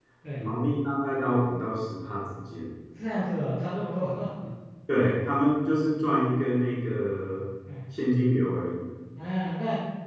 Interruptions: none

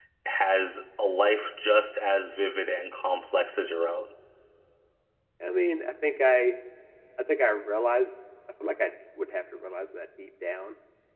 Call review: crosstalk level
none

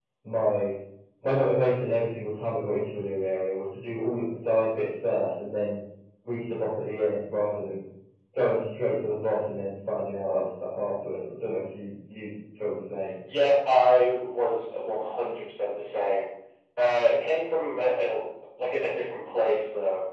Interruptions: none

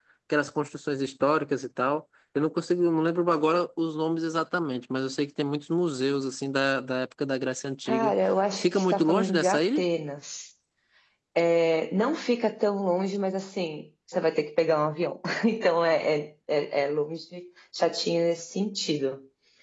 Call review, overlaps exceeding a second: present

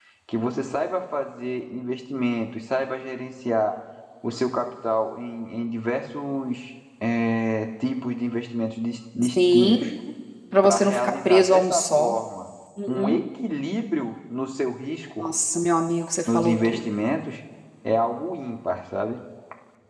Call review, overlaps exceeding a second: present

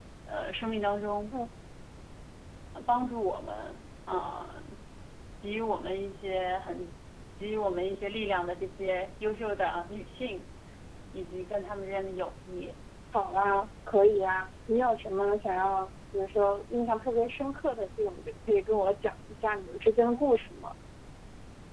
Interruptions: none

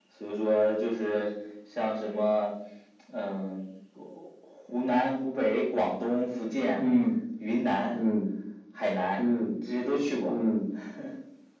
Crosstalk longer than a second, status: none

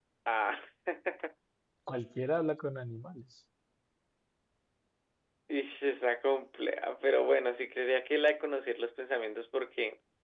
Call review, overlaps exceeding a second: none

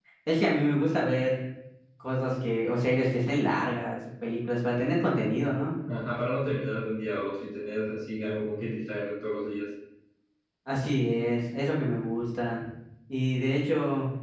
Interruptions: none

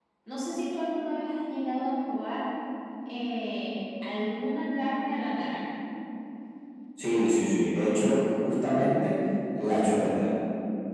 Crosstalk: none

